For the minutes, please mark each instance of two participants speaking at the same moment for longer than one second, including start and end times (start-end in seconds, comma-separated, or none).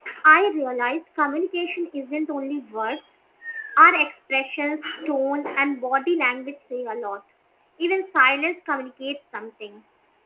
none